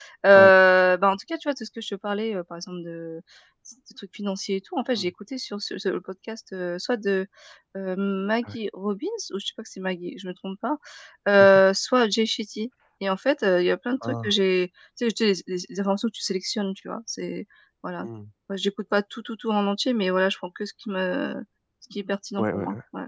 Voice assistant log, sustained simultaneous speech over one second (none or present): none